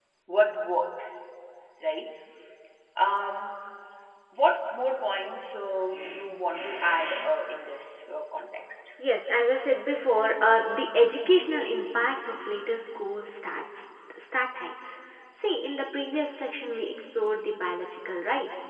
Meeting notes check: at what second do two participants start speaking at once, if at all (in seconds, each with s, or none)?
none